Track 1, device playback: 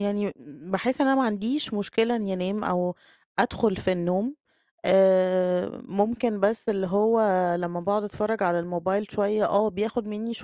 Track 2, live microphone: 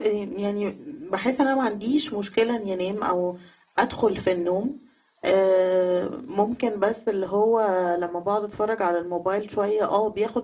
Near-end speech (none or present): none